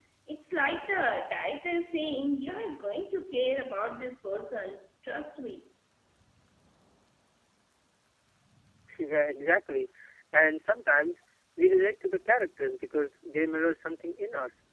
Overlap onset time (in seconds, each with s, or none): none